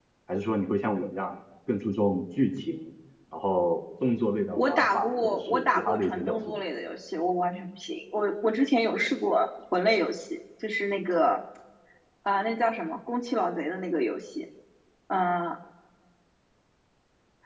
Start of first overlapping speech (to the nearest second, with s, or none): 5 s